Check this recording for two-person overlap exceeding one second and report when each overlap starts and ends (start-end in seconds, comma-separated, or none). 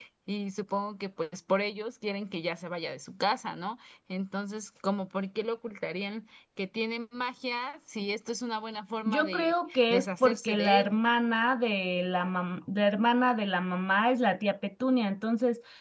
9.1-10.9